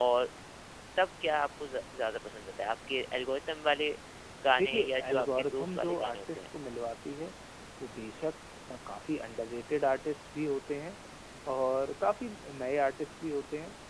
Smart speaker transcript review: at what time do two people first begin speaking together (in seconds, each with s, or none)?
4.5 s